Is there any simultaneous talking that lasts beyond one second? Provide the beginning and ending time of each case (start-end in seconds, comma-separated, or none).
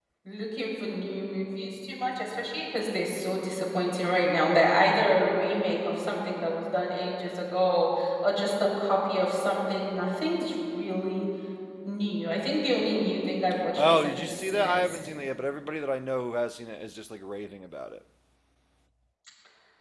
13.8-15.0